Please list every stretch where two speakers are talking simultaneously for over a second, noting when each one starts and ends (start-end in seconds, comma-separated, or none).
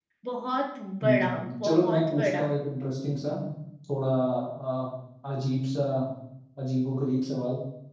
1.0-2.5